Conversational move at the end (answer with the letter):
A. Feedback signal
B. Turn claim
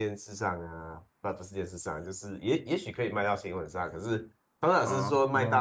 A